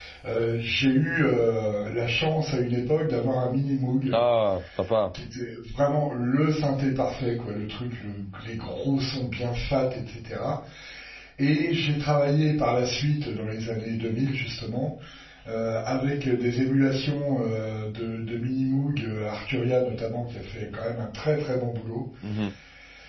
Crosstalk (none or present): none